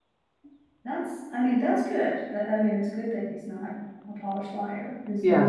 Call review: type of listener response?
listening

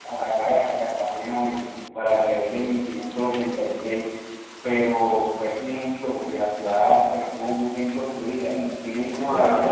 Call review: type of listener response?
listening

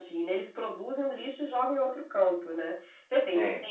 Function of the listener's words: listening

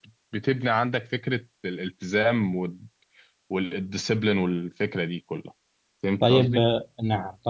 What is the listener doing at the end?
taking over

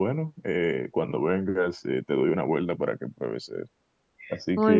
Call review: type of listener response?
listening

